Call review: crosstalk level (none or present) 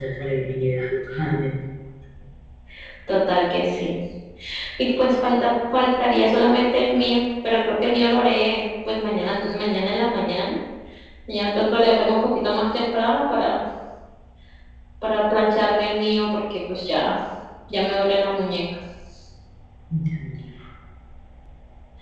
none